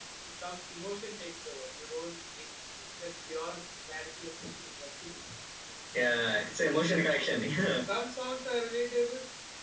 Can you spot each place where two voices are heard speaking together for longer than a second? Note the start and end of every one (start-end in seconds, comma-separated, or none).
none